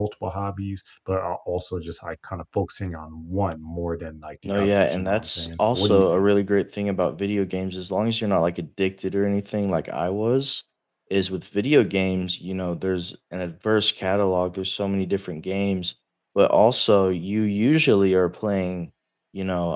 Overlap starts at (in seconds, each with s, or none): 4.4 s